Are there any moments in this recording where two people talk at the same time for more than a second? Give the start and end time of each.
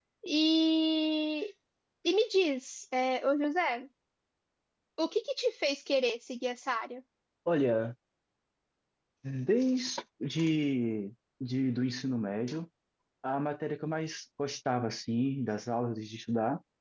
none

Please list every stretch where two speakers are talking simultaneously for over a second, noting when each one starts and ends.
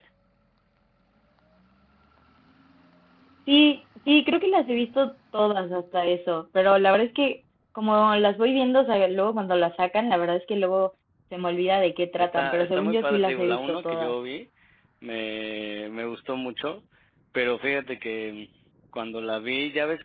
12.2-14.1

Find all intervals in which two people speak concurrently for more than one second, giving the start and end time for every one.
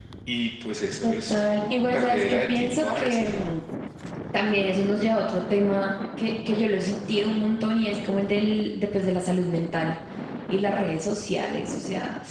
1.0-3.5

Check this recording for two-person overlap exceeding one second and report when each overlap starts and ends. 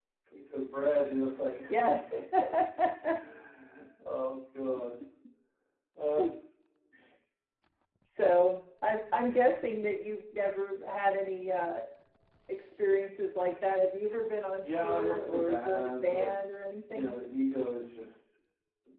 14.6-16.3

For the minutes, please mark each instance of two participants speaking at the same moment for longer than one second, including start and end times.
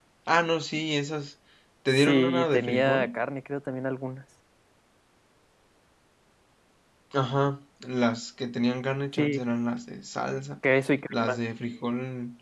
1.9-3.2

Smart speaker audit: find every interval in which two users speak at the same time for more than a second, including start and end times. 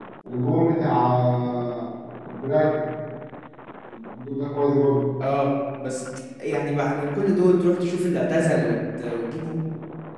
none

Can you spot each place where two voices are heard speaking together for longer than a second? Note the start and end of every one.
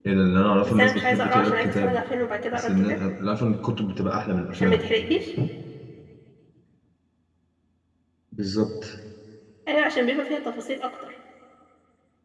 0.7-2.0

